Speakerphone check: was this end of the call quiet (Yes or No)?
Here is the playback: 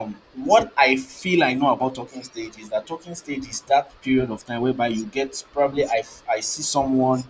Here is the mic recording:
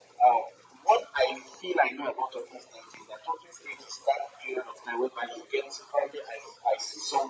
Yes